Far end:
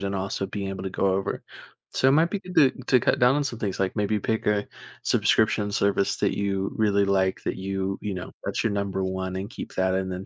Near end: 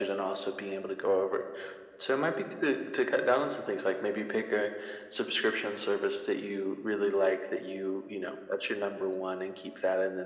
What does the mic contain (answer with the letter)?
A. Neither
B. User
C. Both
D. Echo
D